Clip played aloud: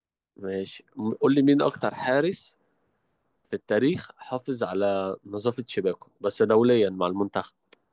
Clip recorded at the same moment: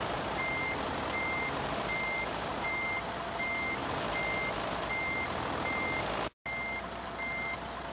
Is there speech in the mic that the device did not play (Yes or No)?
No